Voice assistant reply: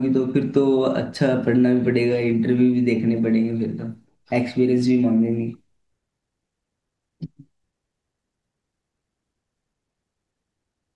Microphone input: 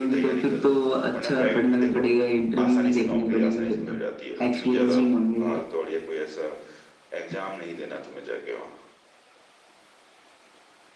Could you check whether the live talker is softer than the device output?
Yes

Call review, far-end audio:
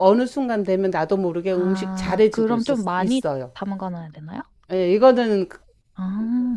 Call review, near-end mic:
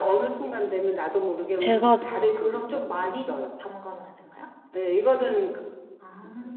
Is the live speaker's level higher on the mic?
Yes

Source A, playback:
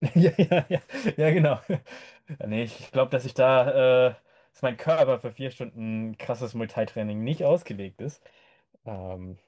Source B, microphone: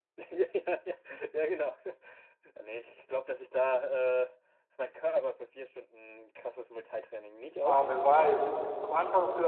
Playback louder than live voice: No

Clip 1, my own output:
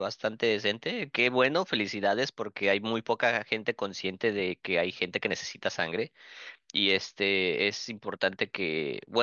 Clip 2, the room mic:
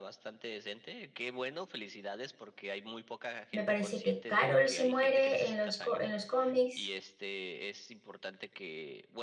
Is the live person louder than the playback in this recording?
Yes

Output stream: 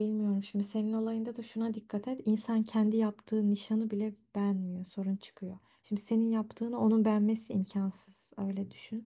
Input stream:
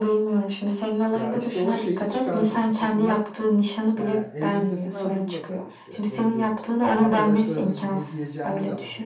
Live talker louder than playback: No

